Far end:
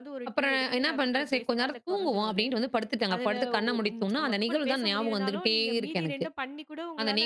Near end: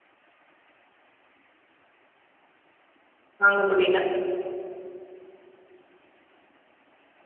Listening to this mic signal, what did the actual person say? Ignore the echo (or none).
வாங்க முடியல.